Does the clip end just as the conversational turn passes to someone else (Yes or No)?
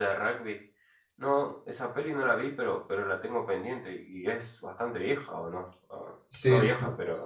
Yes